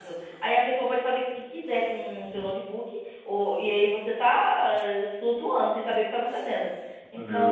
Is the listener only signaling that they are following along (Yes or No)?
Yes